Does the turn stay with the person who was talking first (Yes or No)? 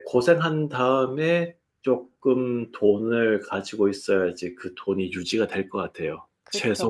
No